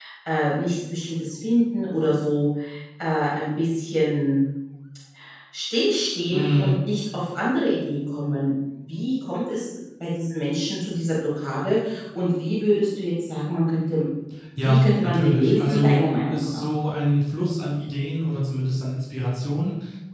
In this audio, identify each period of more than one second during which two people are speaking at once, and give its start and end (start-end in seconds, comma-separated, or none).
14.6-16.7